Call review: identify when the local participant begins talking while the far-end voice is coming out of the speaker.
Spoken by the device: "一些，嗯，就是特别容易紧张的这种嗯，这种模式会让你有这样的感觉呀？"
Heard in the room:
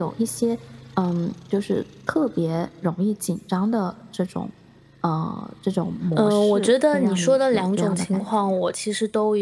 6.1 s

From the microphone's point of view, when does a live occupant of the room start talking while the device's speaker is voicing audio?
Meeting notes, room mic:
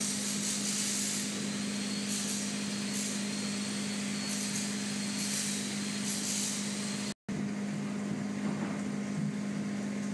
none

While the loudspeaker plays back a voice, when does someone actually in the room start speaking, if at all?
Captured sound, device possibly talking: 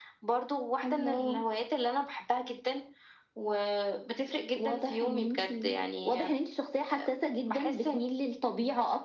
none

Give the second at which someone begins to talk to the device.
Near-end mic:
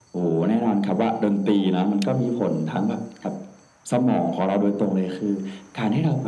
none

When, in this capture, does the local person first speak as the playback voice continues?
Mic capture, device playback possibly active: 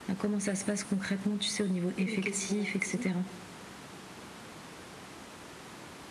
2.1 s

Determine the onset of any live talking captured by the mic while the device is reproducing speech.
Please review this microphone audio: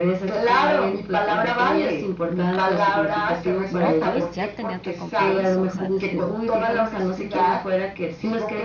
3.7 s

